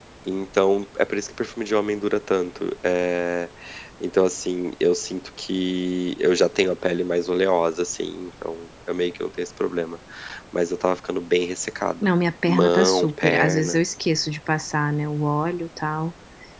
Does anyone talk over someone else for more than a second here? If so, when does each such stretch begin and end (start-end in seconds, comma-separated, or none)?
12.4-13.8